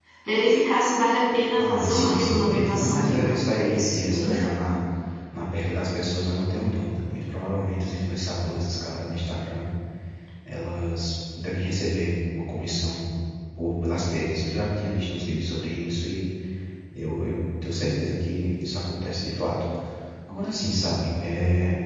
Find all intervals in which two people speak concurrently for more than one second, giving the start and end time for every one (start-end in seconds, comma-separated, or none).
1.6-4.4